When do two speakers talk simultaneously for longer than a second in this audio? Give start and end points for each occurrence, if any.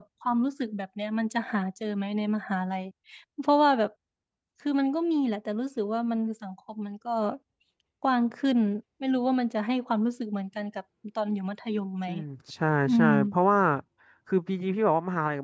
none

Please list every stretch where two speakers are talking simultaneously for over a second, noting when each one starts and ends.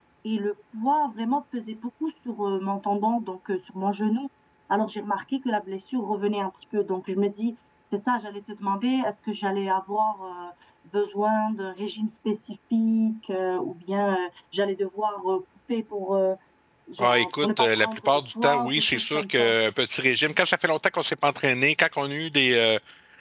17.0-19.5

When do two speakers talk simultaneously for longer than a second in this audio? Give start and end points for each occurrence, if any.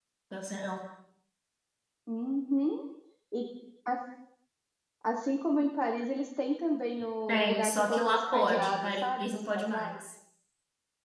7.3-10.0

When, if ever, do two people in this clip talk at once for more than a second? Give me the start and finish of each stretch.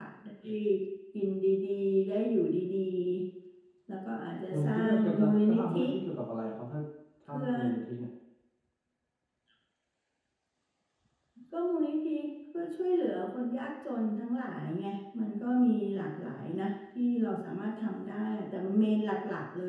4.5-5.8

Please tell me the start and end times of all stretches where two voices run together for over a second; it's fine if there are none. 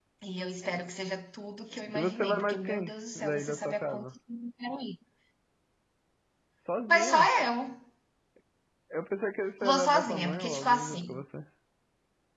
1.9-4.0, 9.6-11.2

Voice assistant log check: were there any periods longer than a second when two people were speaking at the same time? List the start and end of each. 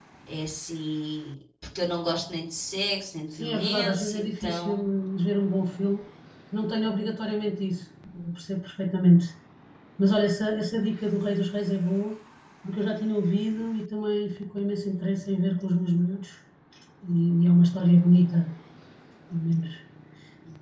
3.3-4.9

